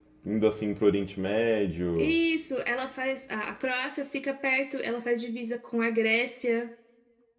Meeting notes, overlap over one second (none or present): none